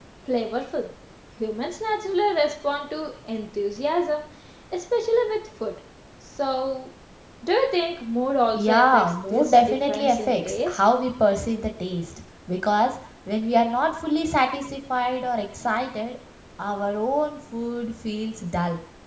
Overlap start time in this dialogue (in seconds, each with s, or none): 8.5 s